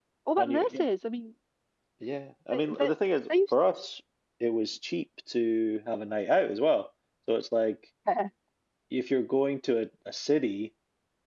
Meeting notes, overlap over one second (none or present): none